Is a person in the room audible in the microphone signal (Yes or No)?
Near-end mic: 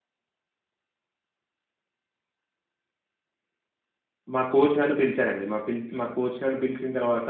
Yes